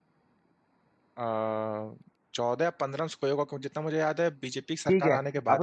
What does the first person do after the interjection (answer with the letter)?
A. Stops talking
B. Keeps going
A